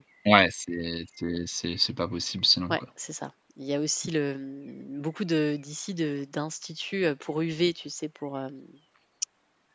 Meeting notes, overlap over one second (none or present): none